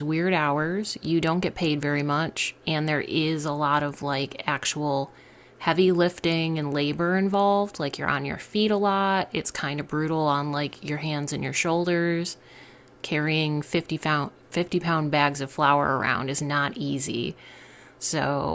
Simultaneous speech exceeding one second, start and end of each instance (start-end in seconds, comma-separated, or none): none